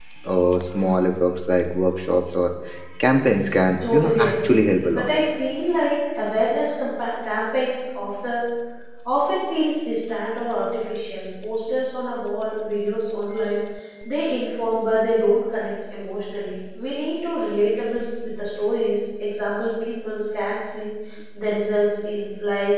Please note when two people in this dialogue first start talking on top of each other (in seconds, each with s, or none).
3.9 s